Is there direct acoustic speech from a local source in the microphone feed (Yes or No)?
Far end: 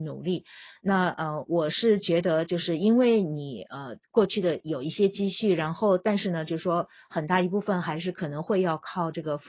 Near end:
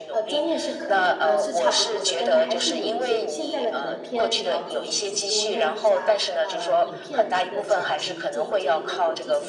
Yes